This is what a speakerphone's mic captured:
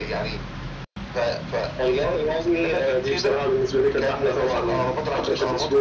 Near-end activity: none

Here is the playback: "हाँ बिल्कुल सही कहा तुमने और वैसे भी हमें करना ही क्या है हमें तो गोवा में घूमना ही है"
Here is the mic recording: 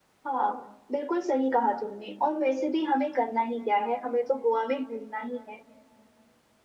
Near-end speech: none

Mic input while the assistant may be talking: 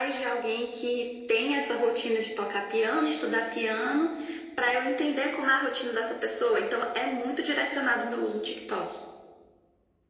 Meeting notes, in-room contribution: none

